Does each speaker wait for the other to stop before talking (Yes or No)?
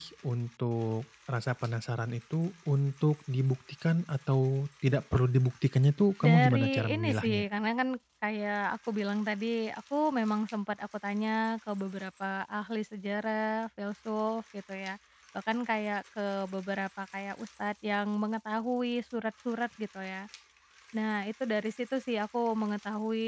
No